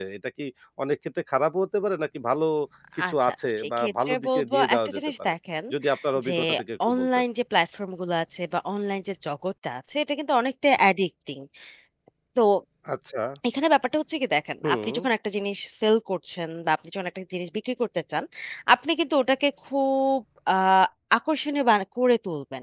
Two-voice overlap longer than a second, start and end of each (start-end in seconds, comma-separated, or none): 3.1-5.3